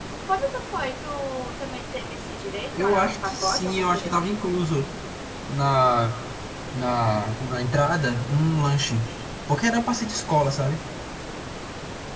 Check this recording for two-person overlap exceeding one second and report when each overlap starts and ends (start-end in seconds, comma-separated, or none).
2.7-4.4